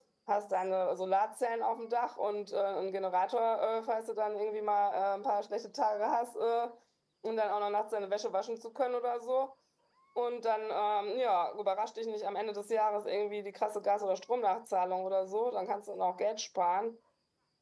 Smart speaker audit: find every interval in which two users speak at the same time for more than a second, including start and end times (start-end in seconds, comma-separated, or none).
none